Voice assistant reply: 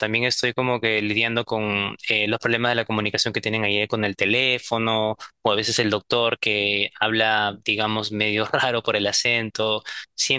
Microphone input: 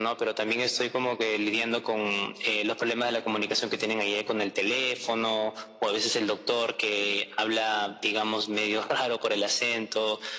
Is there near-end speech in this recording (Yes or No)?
No